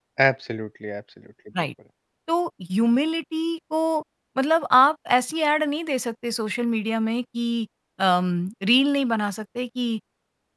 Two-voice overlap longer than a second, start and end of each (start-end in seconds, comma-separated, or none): none